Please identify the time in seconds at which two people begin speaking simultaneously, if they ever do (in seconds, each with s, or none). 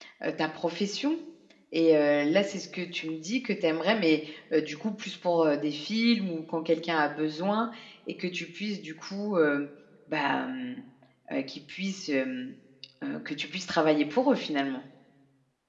none